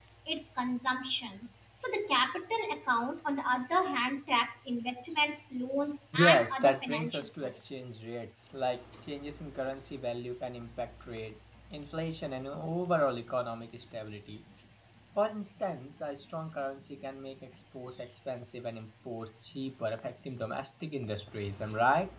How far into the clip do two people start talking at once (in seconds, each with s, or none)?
6.1 s